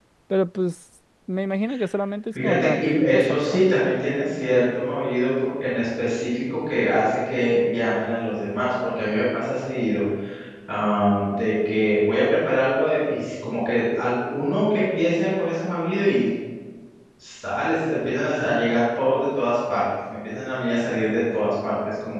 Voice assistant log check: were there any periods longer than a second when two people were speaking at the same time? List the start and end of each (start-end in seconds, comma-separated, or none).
2.4-3.6